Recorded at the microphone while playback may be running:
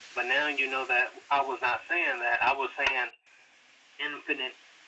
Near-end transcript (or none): none